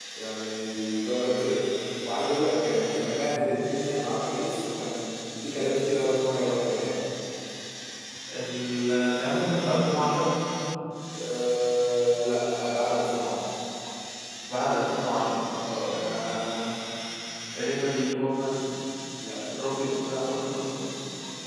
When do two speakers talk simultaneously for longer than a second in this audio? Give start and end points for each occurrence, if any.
none

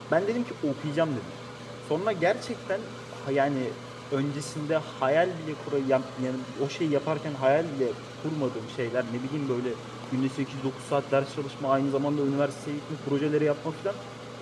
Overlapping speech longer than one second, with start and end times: none

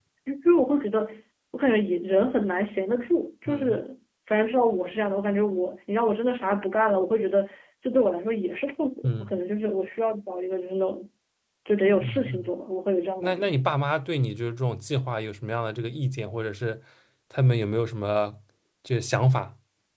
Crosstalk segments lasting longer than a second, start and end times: none

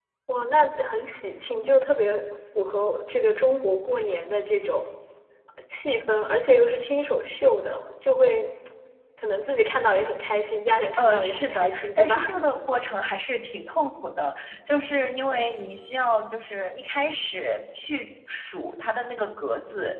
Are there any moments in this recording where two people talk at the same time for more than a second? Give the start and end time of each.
11.0-12.3

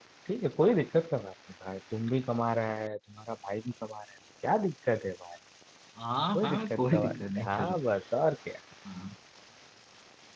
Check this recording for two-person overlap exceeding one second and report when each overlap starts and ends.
6.3-7.8

